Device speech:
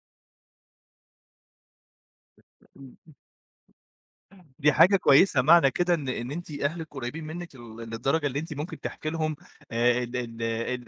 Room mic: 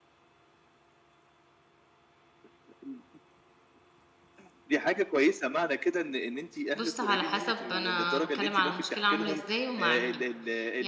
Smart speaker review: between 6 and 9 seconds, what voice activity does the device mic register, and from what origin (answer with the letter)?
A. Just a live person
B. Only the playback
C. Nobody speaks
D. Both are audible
D